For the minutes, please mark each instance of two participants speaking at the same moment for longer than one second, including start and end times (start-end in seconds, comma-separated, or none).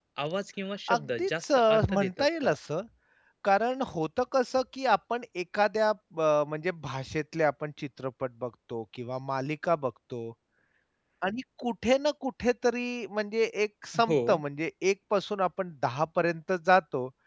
0.9-2.5